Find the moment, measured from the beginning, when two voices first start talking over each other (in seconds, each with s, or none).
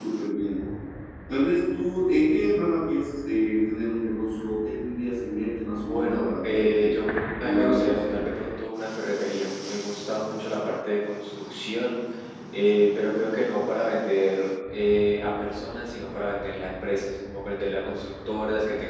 5.7 s